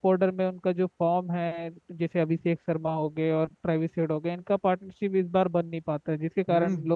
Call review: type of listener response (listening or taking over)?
taking over